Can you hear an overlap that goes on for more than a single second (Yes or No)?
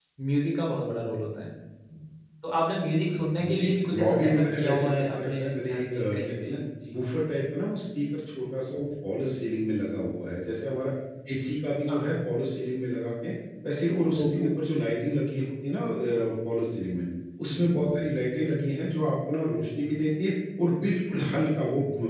Yes